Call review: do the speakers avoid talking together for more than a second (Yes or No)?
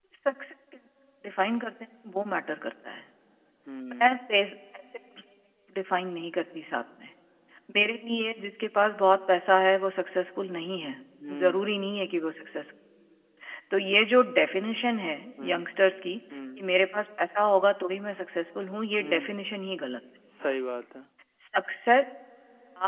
Yes